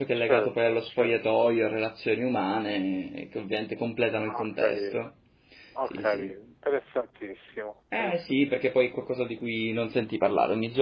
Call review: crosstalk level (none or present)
present